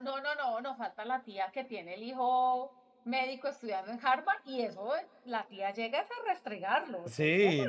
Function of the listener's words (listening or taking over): taking over